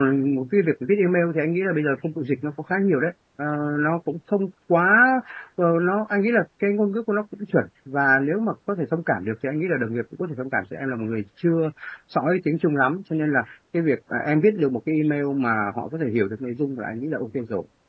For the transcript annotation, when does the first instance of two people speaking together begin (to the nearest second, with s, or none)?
none